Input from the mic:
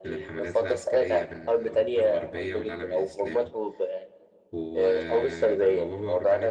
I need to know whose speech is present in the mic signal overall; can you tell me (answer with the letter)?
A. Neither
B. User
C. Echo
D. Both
D